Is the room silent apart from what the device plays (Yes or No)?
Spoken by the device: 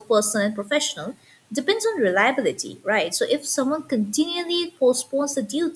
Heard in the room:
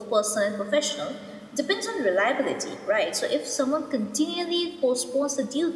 Yes